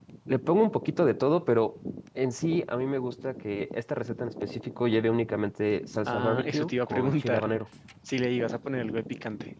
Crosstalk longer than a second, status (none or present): present